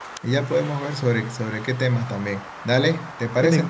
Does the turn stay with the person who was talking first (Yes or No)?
Yes